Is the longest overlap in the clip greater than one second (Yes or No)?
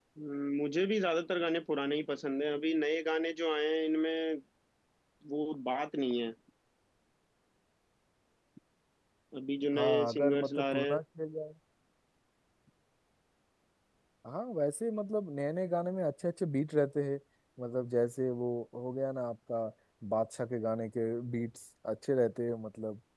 Yes